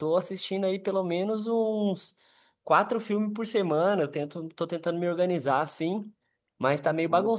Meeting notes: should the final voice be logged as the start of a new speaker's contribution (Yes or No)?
No